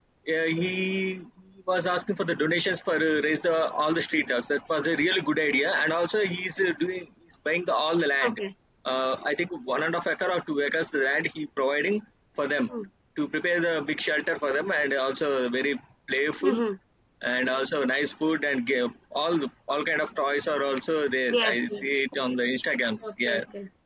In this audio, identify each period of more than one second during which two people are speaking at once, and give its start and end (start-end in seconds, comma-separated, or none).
none